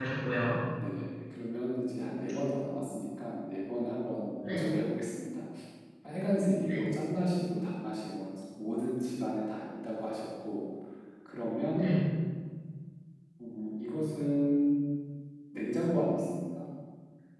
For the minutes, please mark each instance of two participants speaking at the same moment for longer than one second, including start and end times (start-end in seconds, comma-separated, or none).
none